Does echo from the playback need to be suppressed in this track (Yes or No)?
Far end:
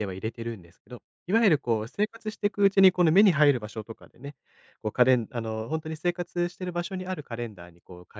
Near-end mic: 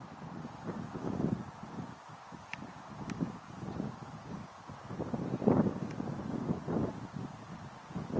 No